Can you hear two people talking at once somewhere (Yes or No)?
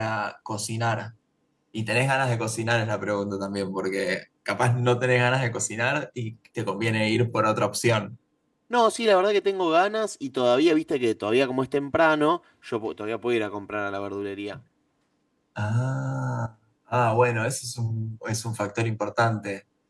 No